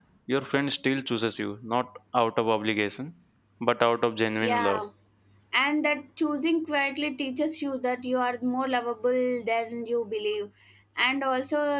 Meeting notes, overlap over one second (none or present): none